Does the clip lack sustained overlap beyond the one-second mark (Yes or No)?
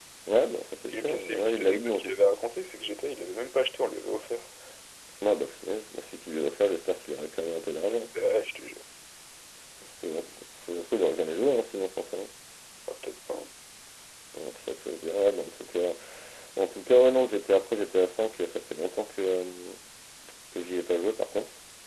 No